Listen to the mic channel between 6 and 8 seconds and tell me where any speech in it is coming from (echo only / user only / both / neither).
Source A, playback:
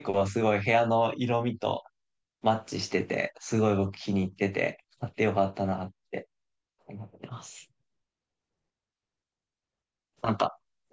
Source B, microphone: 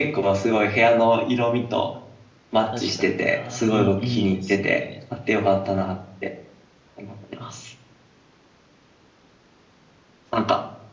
echo only